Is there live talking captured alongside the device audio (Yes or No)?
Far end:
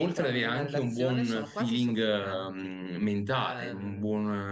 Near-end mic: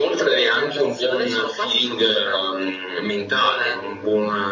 No